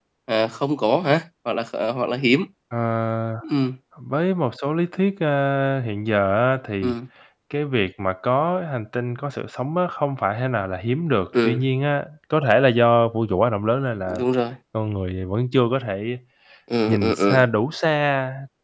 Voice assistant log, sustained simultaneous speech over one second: none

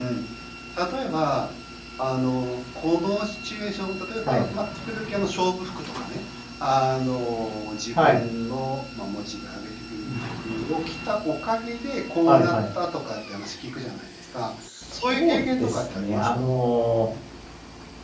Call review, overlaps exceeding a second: present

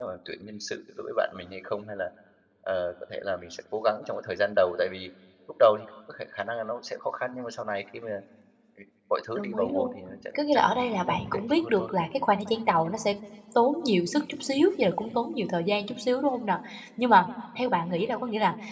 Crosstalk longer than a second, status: present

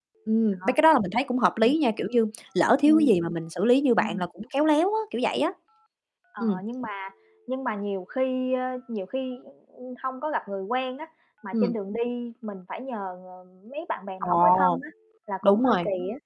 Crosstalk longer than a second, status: none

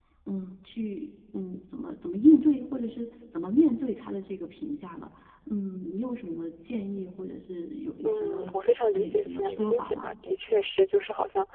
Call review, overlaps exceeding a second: present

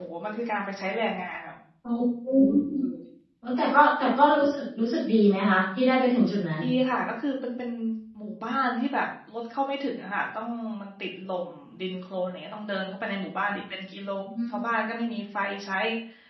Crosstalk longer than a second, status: none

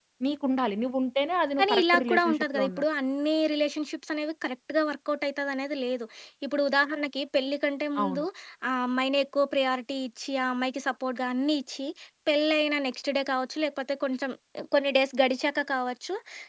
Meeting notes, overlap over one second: present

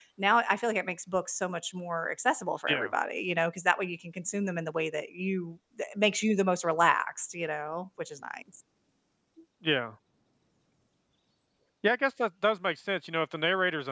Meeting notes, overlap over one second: none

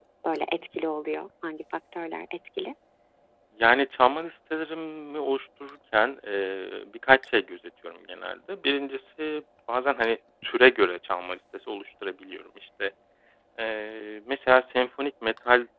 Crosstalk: none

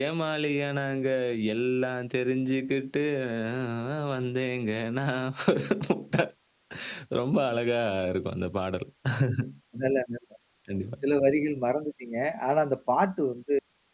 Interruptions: none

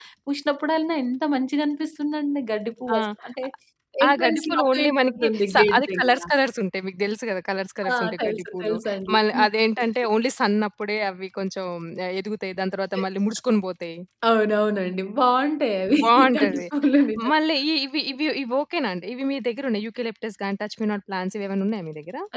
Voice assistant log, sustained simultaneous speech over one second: present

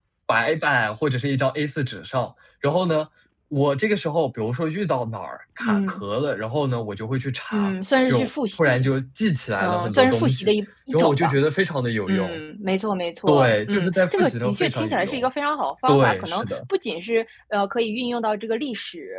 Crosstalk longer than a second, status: present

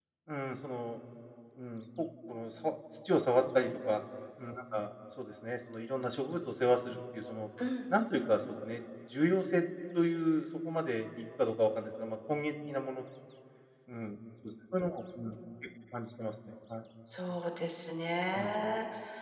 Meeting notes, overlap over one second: none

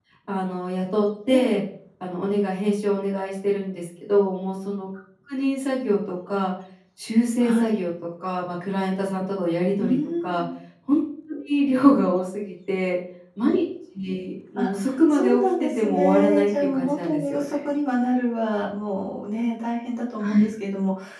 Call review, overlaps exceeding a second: present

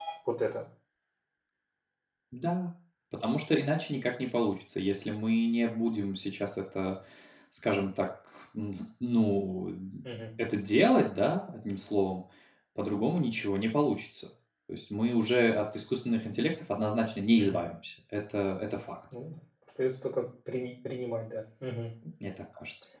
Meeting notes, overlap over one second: none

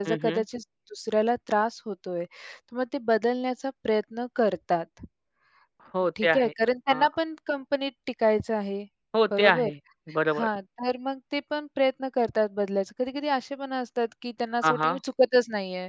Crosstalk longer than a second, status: none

